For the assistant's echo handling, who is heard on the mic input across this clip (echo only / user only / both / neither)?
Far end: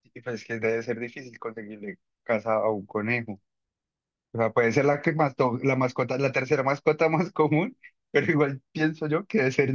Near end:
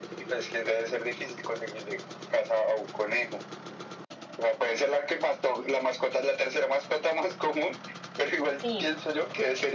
both